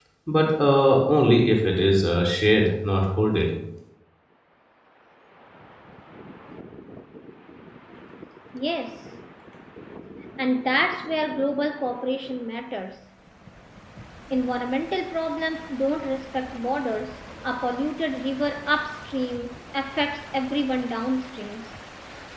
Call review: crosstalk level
none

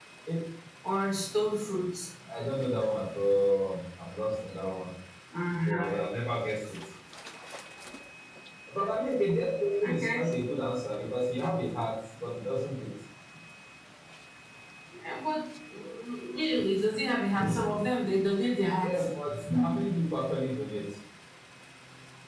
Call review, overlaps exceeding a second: none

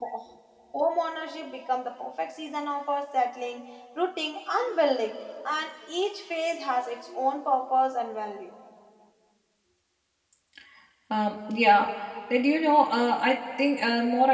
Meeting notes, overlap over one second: none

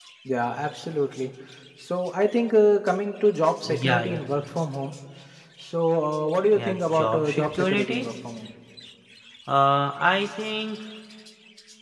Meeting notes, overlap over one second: present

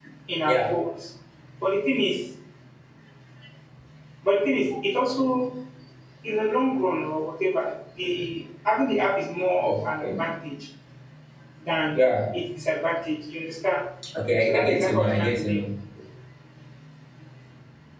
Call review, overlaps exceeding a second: present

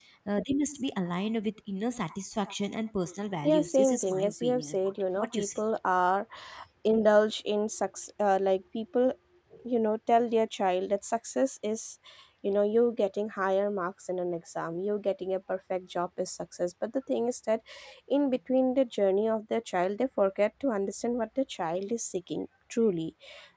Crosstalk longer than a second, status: present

